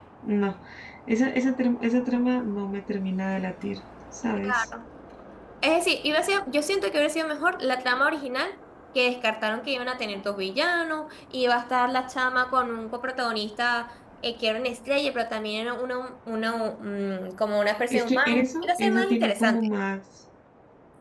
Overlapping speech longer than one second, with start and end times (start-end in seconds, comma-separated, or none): 17.9-19.7